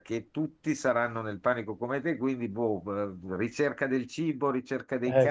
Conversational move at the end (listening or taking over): taking over